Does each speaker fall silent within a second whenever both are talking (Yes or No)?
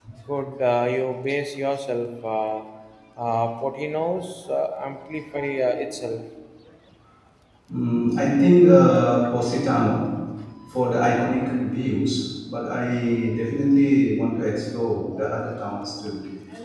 Yes